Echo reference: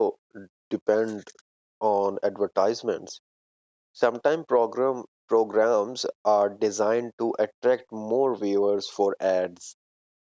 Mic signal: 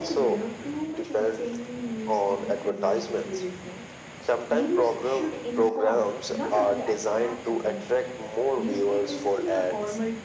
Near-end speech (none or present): present